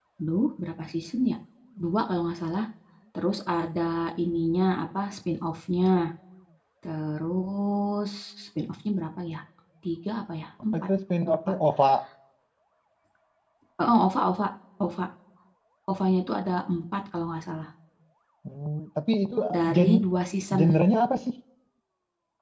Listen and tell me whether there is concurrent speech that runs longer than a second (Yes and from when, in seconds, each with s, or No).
No